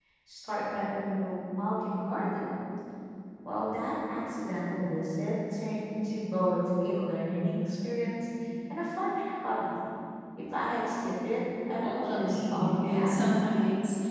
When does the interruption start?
11.8 s

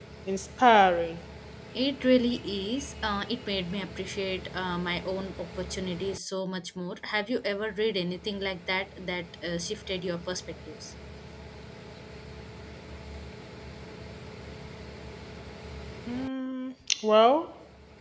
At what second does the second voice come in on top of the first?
none

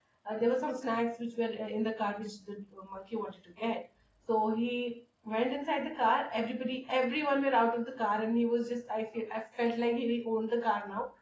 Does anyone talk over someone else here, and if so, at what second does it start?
none

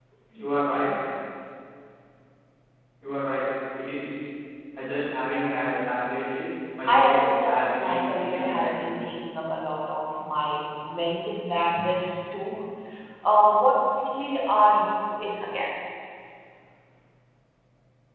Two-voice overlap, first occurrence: 6.9 s

